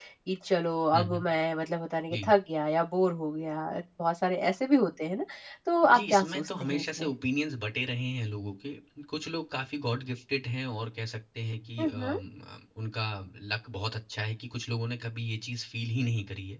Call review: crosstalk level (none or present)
present